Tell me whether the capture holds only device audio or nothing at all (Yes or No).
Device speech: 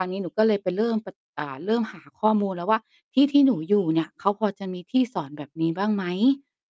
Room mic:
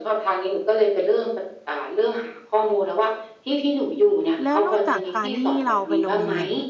No